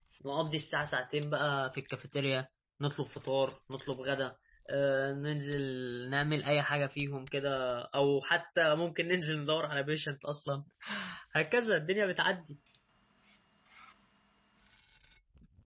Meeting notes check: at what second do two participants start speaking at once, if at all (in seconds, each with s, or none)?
none